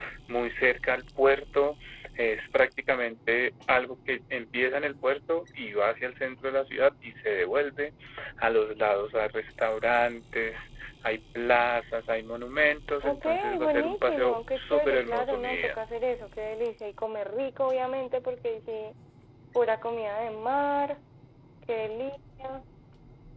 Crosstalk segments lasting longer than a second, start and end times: 13.0-15.8

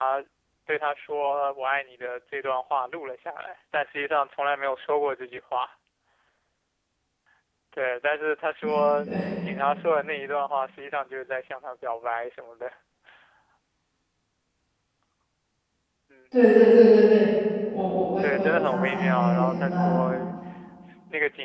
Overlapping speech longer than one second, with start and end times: 18.2-20.0

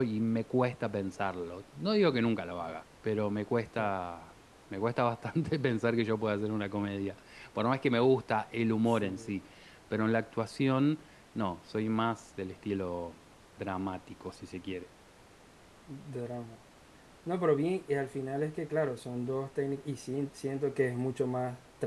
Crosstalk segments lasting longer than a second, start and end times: none

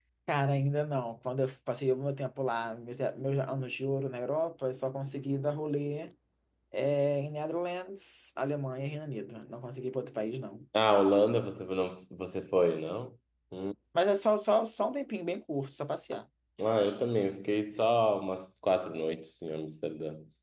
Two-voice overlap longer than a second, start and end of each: none

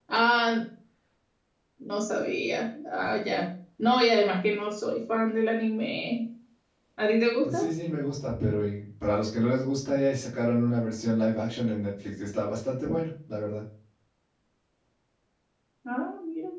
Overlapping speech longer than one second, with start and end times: none

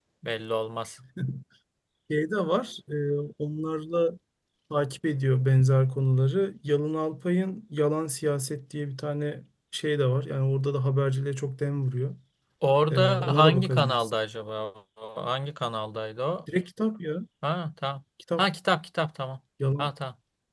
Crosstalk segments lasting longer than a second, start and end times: 12.9-14.1

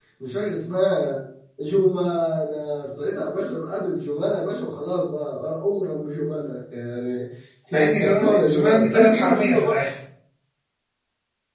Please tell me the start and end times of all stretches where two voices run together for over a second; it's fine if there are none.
7.7-9.7

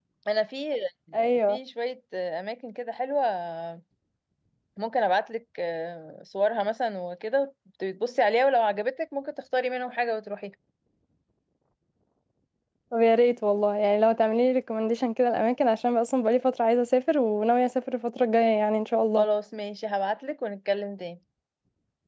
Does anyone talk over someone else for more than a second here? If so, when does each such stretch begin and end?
none

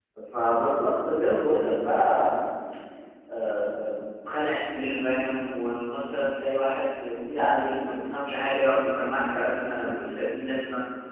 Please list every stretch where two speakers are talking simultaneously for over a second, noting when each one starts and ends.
none

